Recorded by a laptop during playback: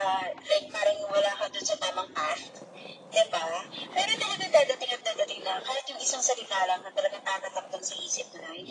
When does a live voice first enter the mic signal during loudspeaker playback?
none

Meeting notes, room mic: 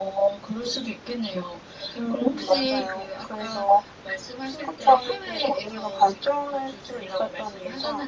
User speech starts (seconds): none

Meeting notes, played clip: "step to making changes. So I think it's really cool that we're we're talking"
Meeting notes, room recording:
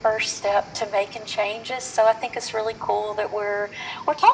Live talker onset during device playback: none

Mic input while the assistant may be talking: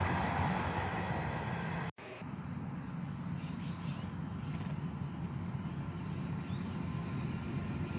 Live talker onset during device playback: none

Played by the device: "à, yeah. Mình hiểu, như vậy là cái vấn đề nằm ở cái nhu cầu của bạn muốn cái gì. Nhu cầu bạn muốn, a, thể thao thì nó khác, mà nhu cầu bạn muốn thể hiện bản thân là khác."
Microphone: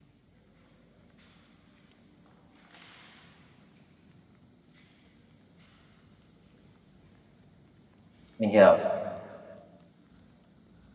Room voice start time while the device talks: 8.4 s

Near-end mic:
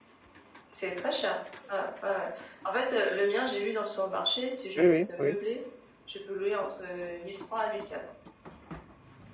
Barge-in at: 4.8 s

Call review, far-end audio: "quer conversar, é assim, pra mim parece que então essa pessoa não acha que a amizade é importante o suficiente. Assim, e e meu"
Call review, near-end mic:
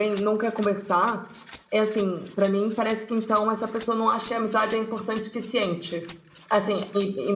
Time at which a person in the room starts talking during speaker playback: none

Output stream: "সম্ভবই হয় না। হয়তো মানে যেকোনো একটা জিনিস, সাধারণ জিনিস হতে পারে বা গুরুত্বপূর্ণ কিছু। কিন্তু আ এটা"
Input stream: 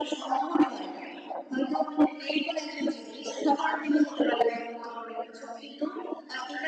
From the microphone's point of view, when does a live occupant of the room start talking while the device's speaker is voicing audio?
none

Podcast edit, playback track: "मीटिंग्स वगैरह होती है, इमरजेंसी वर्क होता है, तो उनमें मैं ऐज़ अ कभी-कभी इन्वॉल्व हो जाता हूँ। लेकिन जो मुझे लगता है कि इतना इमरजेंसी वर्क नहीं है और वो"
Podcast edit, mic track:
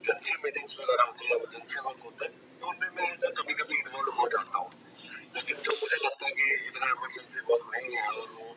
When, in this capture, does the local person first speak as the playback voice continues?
none

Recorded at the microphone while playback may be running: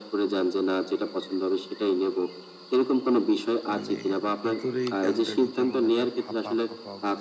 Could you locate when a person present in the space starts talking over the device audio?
3.7 s

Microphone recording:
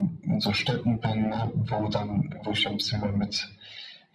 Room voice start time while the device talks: none

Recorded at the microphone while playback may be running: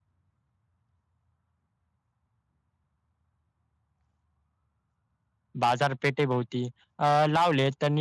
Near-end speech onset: 5.6 s

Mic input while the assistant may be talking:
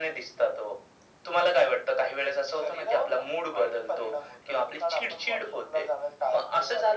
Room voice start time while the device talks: none

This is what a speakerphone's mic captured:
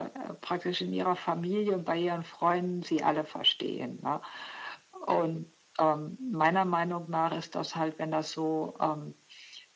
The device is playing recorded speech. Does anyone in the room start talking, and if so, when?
none

